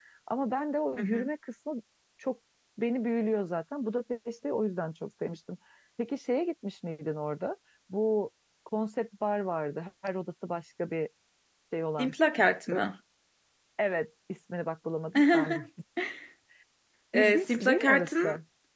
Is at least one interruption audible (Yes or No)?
Yes